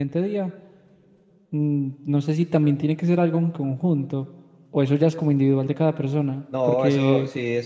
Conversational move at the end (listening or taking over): taking over